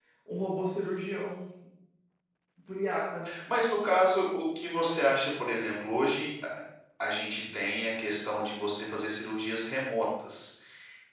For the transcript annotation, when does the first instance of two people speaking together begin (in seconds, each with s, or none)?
none